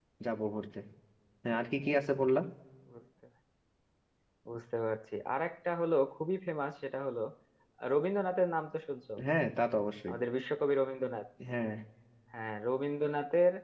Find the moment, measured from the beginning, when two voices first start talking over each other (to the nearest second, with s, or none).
none